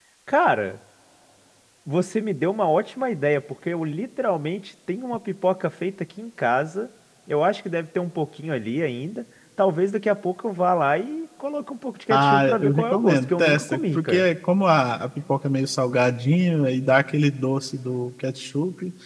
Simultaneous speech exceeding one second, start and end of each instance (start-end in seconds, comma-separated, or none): 12.1-14.2